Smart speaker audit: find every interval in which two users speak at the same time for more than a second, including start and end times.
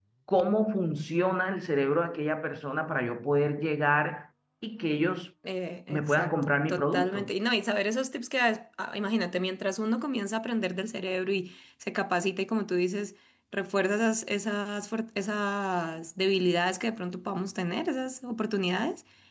5.9-7.3

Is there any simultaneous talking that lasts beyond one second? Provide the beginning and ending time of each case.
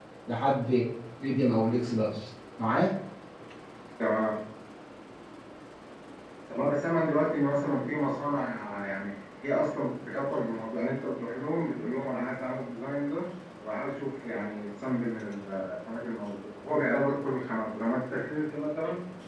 none

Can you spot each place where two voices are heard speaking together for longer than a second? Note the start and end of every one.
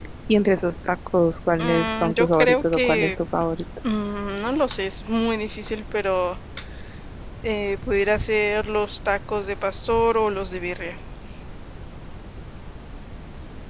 1.6-3.1

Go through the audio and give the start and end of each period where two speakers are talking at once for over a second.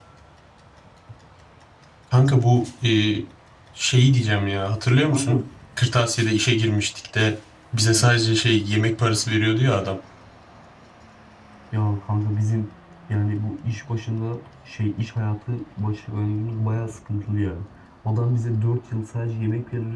none

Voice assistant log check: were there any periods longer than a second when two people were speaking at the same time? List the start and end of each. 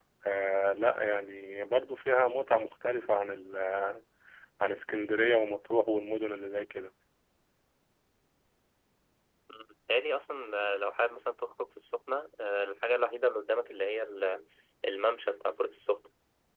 none

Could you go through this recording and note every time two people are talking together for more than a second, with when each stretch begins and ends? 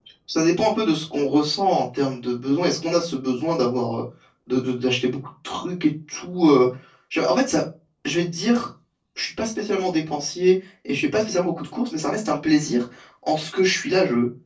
none

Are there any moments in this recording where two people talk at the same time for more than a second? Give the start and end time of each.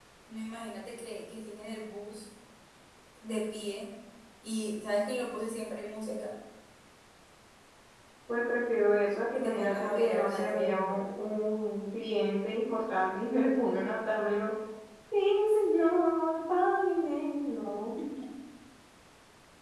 9.3-11.0

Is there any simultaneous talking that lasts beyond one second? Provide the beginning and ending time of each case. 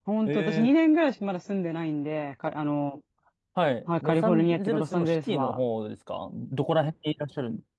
4.0-5.6

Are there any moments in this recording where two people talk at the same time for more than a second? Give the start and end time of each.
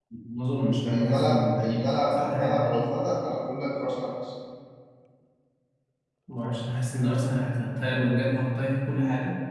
0.8-2.8

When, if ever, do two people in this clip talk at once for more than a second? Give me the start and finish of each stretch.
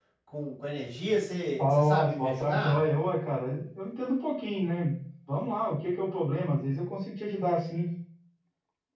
1.6-2.8

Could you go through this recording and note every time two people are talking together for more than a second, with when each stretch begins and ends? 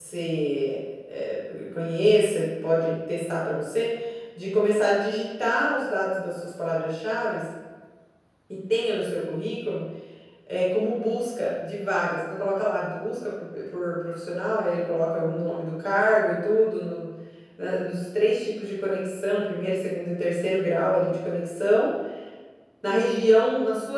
none

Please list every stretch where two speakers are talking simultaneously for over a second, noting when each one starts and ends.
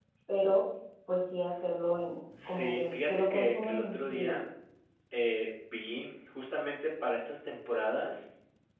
2.4-4.4

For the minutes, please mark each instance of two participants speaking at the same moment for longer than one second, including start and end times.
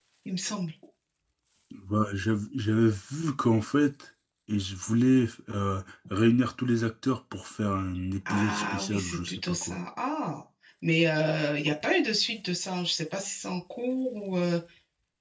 8.3-9.8

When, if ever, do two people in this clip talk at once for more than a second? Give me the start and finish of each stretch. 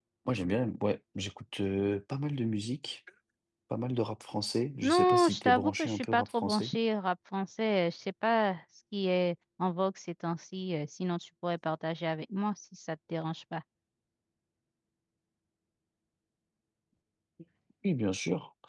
4.8-6.7

